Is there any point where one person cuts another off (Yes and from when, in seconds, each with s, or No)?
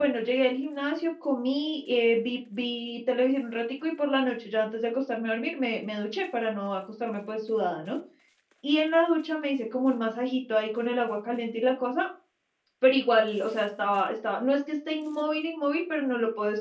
No